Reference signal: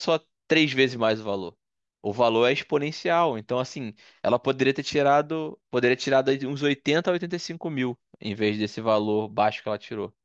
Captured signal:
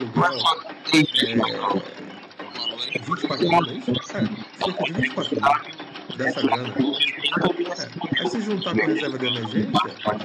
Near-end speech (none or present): present